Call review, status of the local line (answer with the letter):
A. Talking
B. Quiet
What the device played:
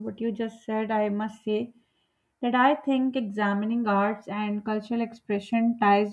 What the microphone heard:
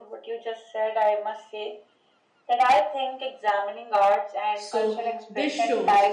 A